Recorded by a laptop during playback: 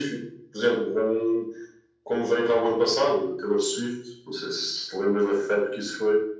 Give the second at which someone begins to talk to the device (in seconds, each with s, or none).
none